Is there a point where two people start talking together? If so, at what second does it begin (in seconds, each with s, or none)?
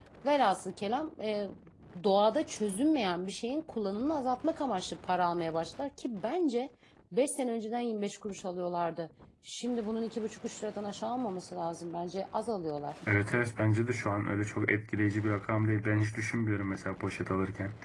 none